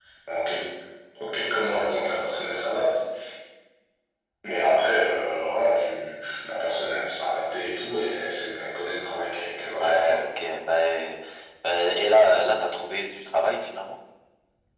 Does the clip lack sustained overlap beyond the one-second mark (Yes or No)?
Yes